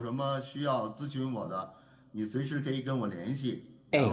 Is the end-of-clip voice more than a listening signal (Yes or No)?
No